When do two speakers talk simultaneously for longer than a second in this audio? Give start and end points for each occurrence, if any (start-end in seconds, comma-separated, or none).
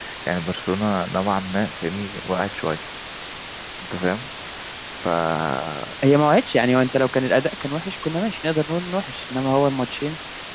none